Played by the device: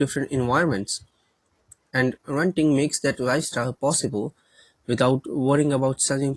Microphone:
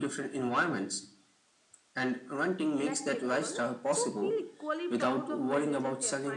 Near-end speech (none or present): present